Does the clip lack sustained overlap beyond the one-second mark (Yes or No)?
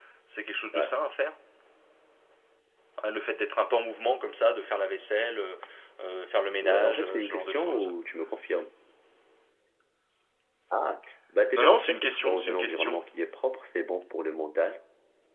No